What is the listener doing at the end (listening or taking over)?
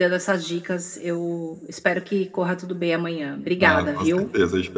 taking over